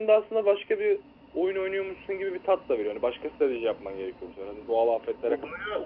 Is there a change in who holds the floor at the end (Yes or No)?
Yes